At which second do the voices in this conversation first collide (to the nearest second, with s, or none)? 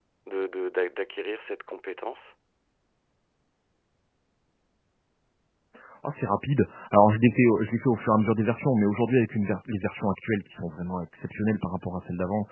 none